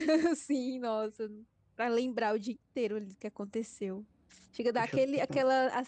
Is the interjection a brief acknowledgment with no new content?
Yes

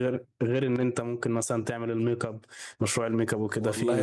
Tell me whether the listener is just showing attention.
No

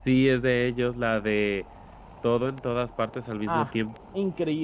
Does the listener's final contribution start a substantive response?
Yes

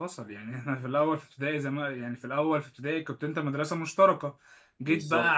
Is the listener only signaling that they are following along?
Yes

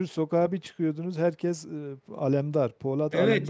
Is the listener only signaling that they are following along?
No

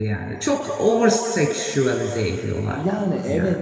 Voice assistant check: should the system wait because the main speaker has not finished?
No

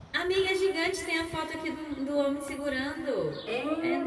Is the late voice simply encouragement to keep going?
No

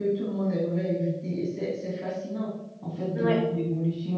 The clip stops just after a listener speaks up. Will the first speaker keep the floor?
Yes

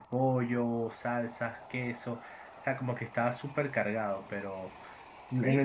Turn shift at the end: No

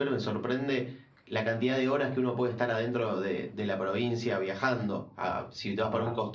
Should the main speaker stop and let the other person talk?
No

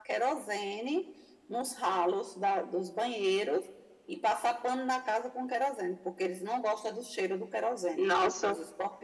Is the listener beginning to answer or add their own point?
No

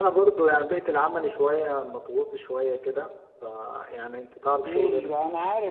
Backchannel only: No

